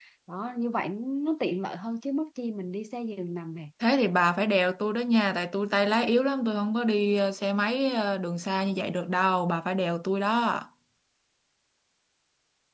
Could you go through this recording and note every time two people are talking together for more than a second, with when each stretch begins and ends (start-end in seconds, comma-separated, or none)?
none